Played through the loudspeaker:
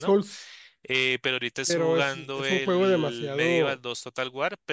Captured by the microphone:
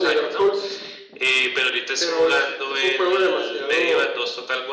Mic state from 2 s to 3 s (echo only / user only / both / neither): echo only